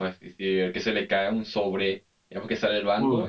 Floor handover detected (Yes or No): No